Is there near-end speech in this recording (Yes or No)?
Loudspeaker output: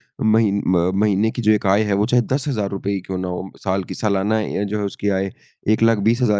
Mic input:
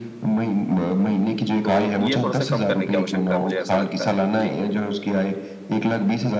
Yes